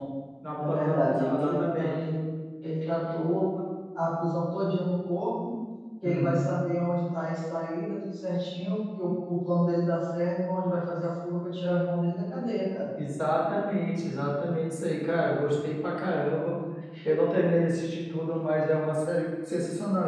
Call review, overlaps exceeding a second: present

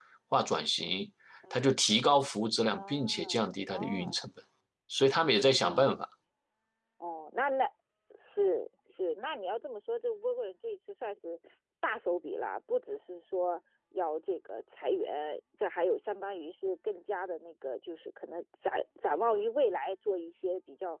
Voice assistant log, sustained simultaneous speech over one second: present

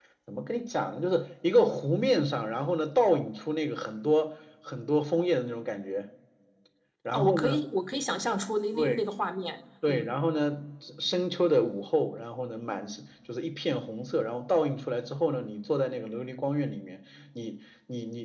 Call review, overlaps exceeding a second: none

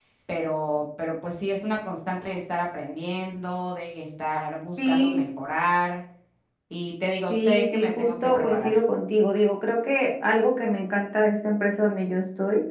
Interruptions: present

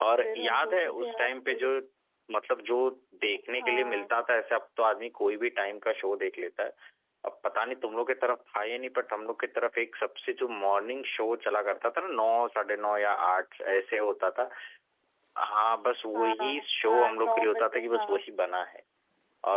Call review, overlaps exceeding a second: present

